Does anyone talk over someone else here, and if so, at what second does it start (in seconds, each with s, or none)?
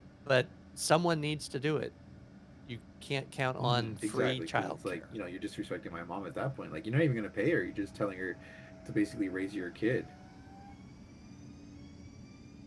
3.6 s